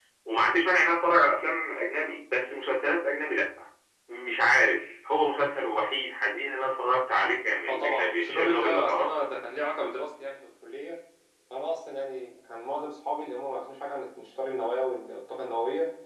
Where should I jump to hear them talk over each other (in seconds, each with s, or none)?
7.7 s